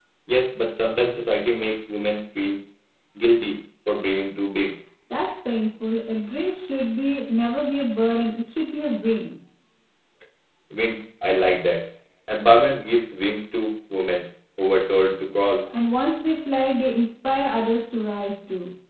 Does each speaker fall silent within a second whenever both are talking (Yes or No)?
Yes